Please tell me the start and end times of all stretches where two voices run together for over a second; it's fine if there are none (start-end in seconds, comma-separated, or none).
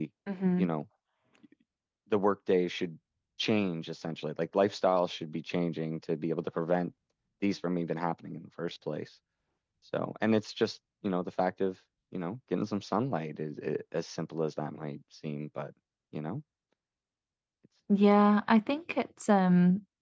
none